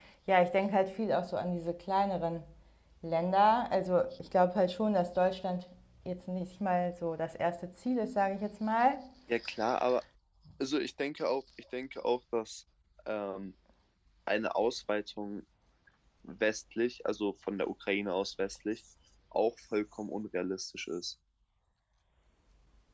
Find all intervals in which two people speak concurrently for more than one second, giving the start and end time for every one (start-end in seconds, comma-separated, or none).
none